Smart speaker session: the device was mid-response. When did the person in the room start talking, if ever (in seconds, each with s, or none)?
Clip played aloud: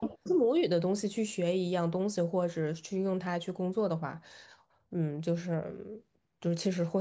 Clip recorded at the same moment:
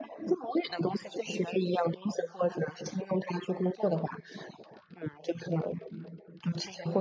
none